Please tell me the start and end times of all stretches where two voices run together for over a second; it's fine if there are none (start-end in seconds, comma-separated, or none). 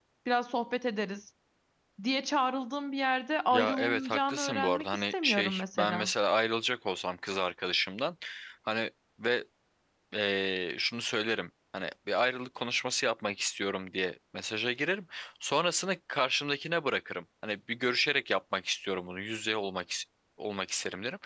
3.5-6.1